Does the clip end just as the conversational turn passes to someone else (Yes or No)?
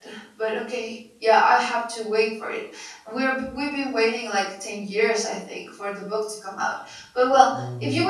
No